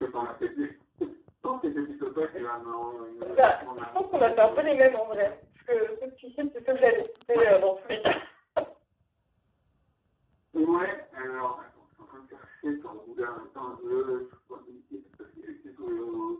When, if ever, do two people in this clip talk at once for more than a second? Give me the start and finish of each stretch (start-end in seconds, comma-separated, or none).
3.3-5.2